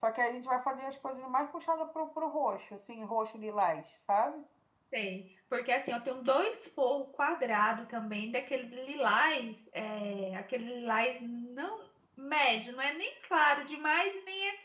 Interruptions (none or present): none